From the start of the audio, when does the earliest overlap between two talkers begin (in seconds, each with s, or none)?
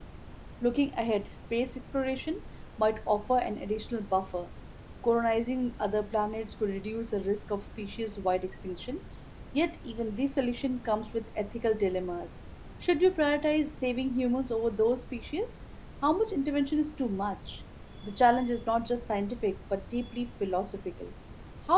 none